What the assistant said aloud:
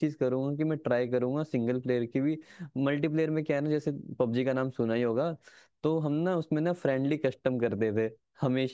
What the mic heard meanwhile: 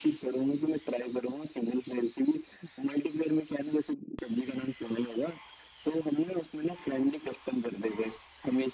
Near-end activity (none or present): none